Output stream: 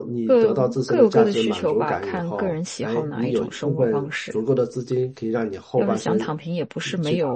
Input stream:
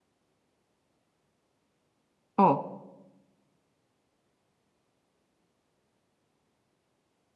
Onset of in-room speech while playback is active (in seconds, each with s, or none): 2.4 s